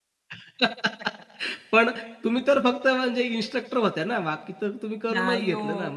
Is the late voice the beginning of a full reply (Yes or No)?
Yes